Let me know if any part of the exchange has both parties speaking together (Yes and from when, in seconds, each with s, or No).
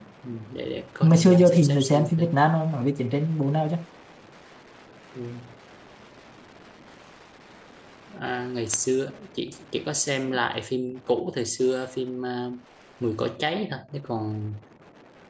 Yes, from 1.0 s